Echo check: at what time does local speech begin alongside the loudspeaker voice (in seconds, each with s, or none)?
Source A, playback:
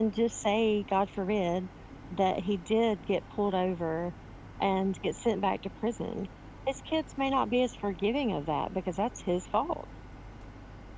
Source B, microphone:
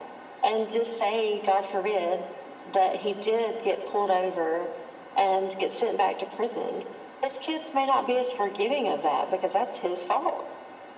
none